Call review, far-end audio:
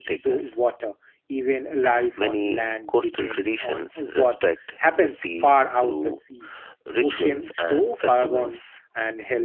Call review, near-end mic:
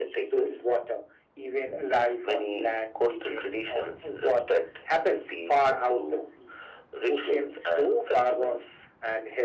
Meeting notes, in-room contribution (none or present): none